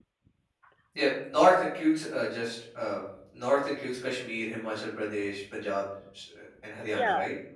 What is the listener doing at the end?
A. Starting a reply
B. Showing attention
A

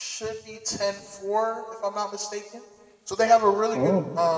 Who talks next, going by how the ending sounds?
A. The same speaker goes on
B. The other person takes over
A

